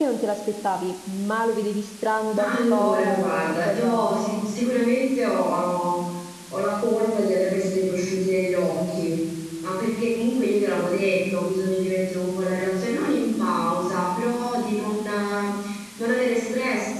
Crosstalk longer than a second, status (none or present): present